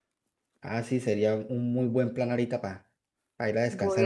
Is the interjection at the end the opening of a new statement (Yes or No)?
Yes